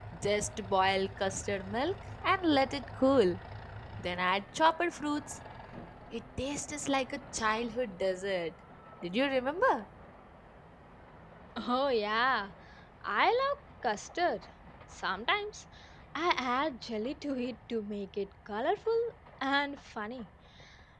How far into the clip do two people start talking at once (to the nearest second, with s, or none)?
none